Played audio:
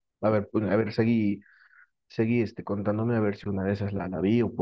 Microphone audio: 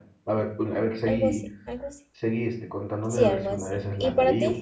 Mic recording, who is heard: both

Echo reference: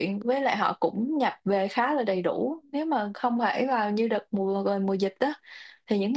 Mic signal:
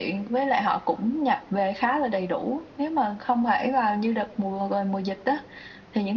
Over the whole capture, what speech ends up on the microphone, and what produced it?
echo only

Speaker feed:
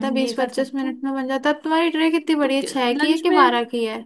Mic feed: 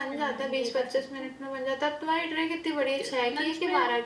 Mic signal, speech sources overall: echo only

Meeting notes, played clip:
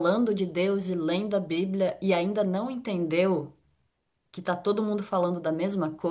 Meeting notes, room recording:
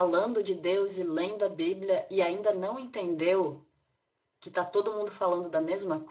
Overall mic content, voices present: echo only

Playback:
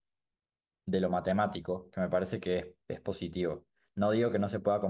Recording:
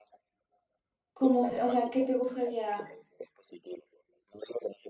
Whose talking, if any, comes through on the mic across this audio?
both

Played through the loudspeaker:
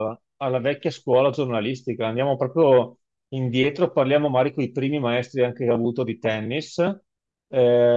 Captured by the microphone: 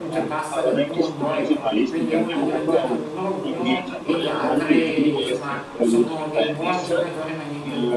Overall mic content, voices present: both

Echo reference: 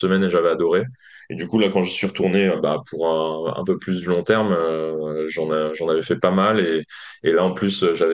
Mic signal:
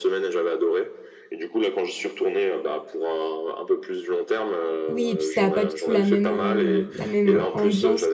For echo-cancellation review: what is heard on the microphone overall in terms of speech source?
both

